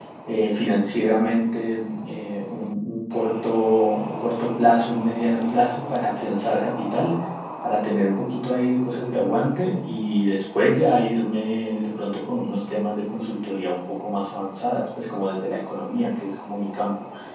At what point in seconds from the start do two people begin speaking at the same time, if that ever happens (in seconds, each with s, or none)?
none